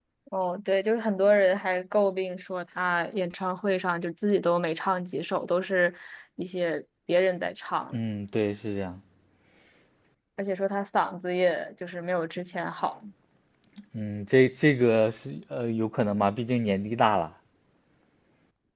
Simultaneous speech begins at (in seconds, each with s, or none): none